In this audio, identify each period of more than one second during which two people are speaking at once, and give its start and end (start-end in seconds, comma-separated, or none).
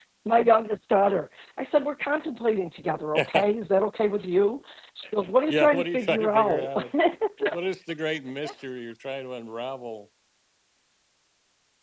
5.5-6.7